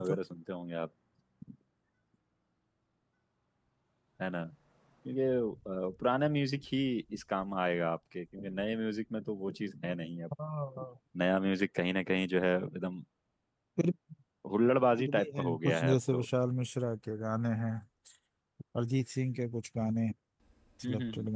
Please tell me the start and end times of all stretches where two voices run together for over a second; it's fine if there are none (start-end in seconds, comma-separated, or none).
15.0-16.2